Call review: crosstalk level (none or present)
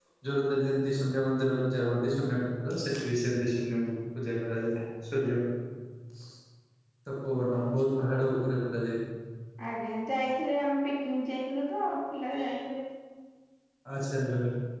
none